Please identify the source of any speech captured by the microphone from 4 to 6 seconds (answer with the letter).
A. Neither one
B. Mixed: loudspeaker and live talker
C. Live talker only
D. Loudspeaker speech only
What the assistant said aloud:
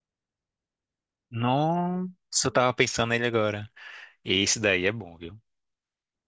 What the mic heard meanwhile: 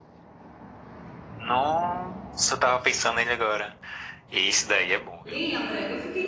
B